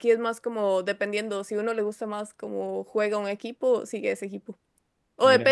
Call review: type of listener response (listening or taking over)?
listening